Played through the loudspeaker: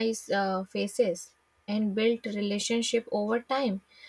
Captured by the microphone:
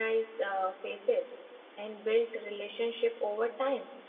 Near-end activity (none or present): none